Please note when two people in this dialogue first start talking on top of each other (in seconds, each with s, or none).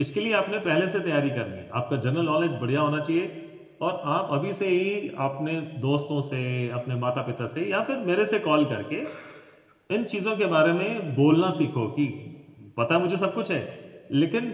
none